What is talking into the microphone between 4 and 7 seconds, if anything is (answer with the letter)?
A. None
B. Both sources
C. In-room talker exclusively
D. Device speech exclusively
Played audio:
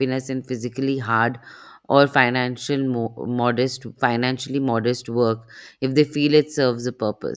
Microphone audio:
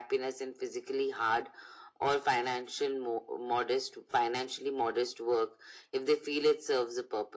D